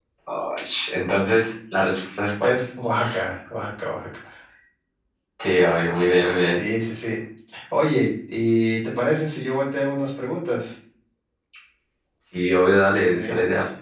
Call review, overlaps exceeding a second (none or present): none